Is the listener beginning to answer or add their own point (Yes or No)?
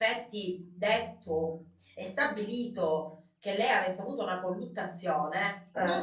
No